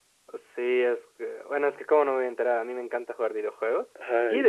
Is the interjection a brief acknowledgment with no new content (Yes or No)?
Yes